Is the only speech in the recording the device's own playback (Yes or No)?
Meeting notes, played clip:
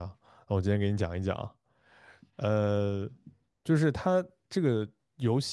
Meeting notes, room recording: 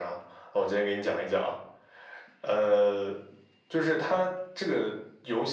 Yes